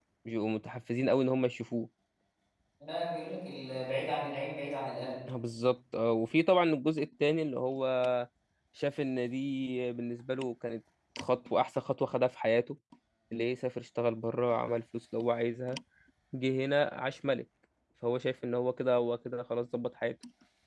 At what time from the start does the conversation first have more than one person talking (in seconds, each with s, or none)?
none